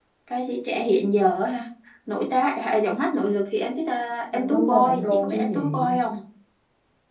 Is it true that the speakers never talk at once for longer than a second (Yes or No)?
No